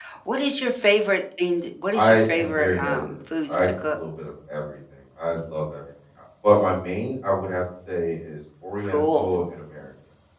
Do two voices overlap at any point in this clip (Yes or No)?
Yes